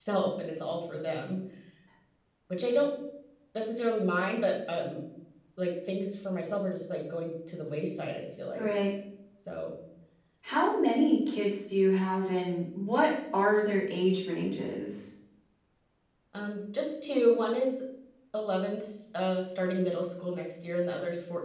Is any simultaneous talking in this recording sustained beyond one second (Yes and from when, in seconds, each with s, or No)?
No